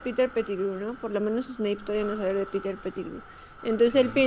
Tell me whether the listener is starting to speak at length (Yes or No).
No